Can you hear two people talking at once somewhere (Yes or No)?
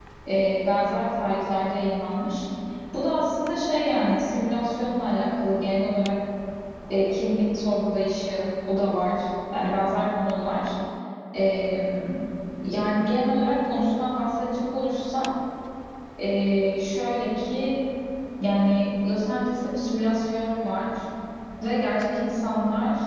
No